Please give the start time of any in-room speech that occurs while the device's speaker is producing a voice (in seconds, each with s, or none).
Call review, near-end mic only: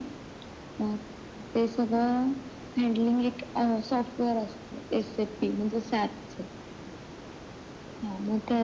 none